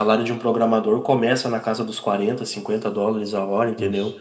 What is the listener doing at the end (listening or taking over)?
listening